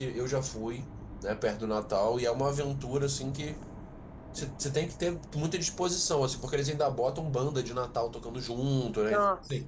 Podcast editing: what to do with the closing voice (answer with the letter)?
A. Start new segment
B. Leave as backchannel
B